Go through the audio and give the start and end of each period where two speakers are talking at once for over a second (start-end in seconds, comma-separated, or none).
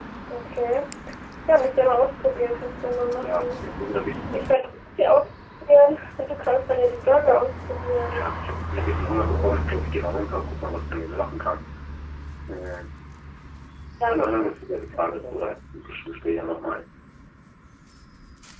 14.1-15.5